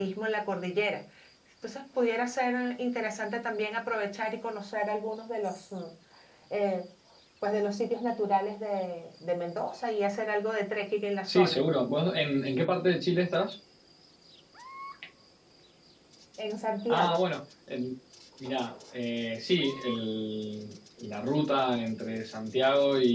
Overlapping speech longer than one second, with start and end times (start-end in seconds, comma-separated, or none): none